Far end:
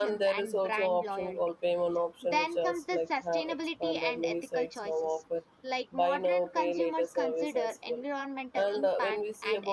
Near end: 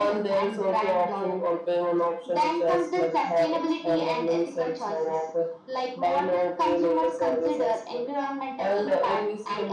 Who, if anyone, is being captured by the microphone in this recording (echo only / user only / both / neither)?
echo only